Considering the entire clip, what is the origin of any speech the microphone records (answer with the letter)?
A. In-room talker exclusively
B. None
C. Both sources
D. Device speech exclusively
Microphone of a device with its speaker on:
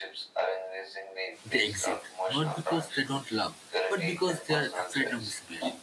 C